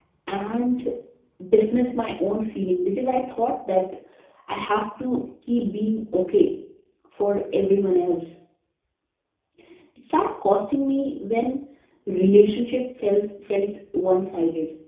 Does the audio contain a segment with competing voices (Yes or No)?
No